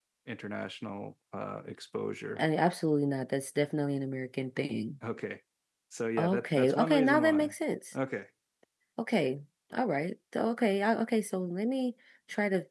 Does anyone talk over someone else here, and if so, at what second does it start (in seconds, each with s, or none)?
6.2 s